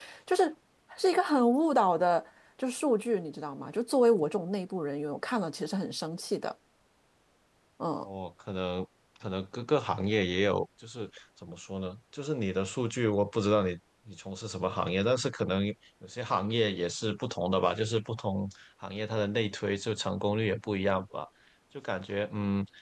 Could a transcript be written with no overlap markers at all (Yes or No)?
Yes